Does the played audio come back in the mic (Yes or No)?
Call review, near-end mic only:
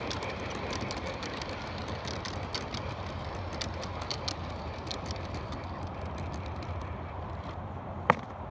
No